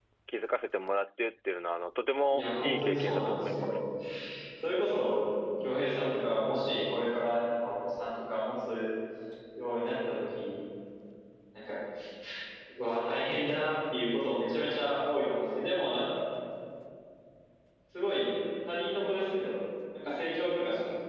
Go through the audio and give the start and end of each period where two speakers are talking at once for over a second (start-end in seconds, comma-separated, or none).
2.3-3.8